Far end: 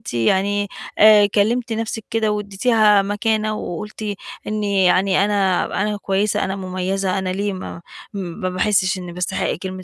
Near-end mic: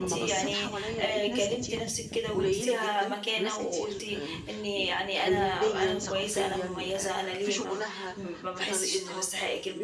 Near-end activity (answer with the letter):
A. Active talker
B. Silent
A